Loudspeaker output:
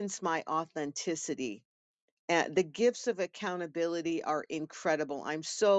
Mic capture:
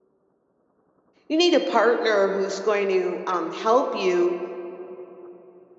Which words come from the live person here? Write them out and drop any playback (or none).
You need a partner who's going to um, help you